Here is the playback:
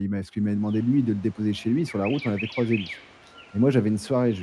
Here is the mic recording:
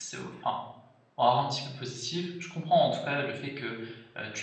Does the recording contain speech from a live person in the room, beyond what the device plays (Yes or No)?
Yes